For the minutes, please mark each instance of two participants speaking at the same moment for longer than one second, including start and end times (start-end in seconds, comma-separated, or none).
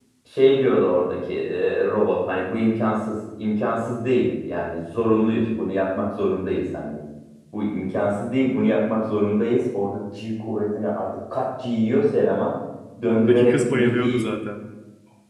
13.0-14.3